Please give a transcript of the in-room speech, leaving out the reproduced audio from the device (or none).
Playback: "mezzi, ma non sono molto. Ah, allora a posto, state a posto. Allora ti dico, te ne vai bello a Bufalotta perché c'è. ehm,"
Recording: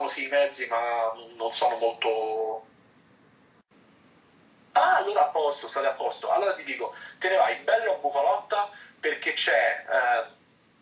none